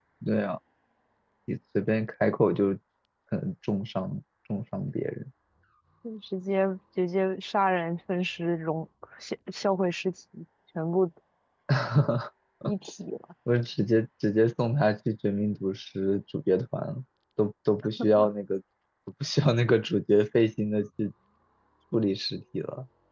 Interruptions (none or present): none